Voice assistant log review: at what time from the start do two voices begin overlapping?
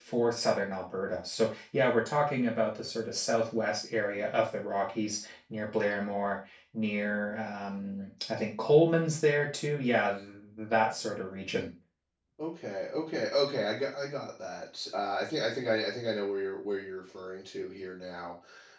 none

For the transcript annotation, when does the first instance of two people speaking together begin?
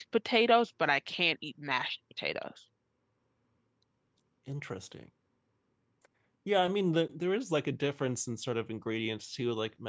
none

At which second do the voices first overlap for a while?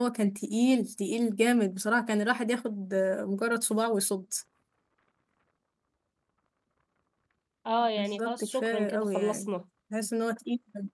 8 s

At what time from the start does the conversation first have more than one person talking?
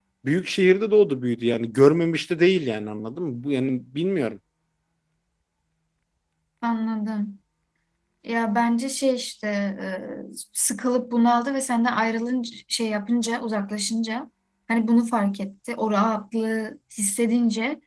none

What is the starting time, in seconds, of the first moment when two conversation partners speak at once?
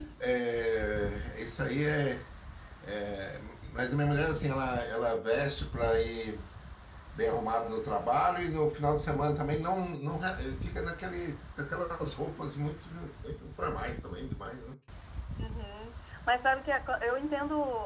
none

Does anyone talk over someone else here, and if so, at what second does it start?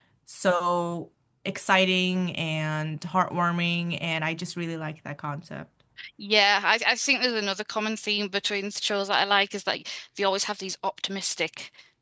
none

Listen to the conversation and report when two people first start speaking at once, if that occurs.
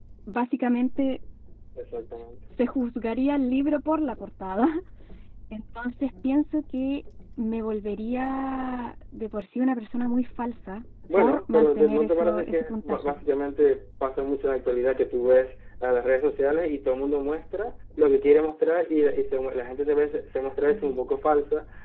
11 s

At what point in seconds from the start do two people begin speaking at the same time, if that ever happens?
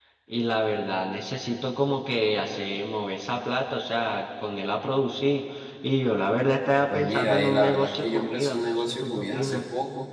7 s

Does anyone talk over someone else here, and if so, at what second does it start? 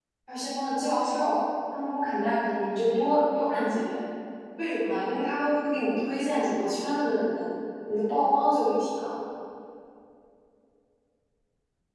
none

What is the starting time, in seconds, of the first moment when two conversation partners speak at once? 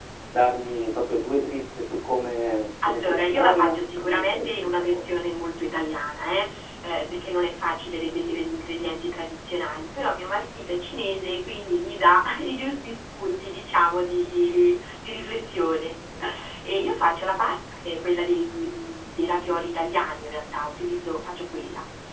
3 s

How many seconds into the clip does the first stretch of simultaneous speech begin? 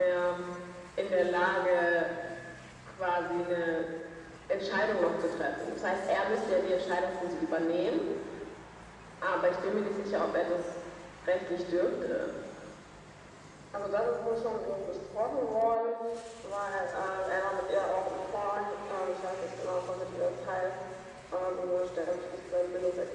none

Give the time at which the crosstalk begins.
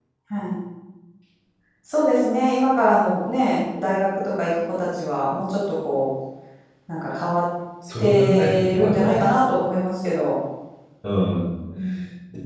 8 s

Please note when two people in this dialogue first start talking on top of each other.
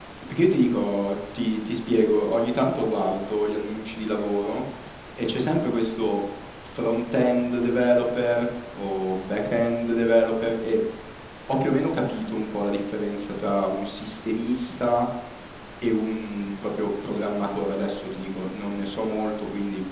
none

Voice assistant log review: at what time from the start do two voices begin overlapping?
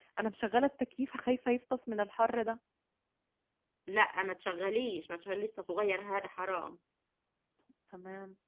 none

